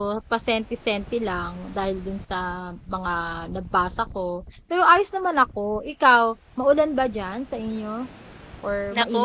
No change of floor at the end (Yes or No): No